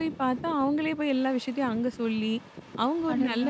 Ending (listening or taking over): listening